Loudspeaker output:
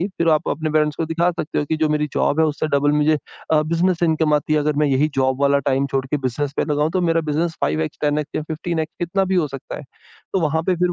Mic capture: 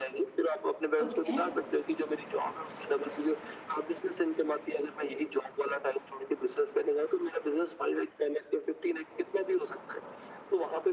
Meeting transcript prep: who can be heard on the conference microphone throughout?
both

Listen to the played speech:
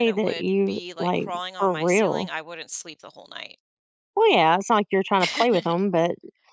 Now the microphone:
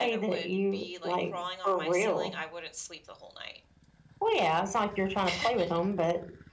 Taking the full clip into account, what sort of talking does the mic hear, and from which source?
echo only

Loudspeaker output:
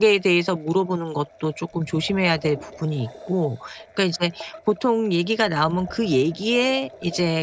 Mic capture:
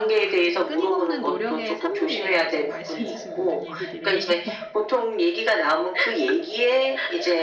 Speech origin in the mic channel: both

